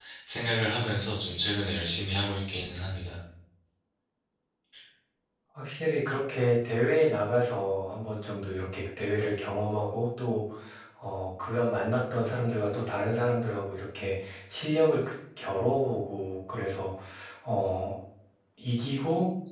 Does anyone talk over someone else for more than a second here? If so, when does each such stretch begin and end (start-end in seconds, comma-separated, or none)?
none